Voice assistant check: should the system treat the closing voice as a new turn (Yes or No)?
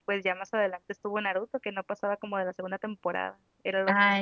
Yes